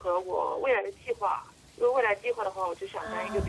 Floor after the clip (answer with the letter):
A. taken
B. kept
B